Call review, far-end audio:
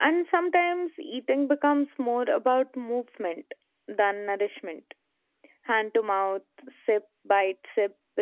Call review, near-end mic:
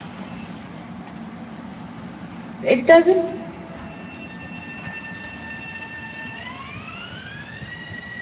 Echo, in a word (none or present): none